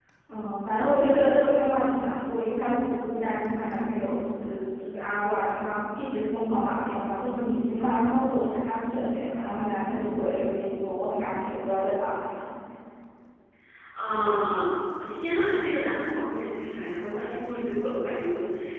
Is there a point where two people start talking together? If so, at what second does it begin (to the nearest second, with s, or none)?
none